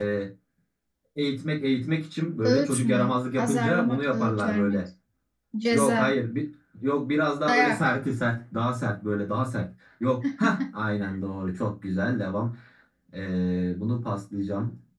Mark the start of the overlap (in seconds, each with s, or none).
2.4 s